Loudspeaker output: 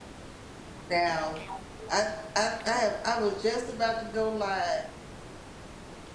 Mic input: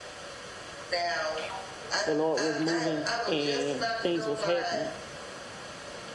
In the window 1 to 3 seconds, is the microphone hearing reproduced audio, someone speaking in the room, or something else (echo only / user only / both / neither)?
both